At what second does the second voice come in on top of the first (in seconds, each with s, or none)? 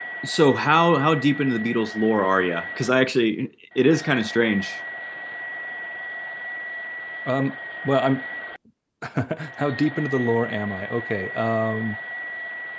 none